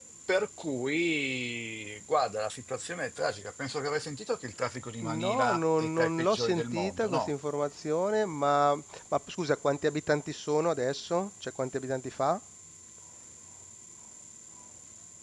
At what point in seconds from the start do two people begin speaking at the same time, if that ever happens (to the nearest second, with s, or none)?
5 s